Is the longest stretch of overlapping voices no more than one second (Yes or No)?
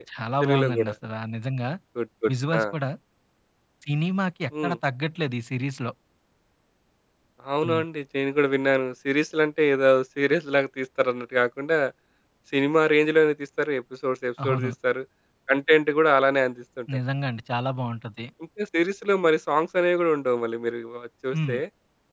Yes